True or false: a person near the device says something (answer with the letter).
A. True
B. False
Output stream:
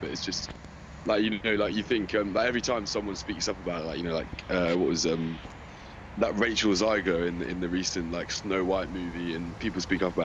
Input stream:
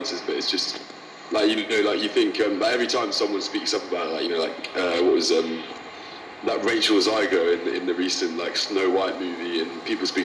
B